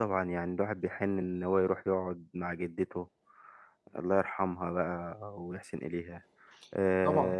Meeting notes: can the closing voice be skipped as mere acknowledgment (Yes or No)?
No